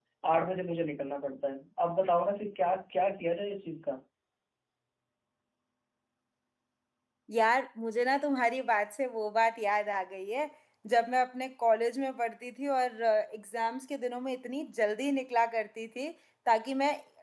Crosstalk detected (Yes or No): No